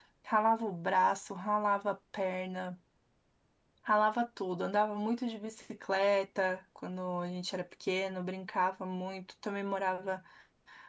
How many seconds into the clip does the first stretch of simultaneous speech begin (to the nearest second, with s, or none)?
none